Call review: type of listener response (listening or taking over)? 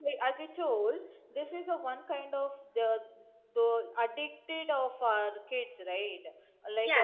listening